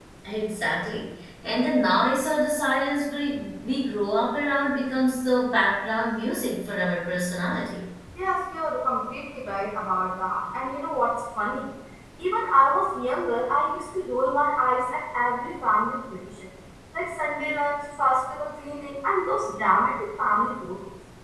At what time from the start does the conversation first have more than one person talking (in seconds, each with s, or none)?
none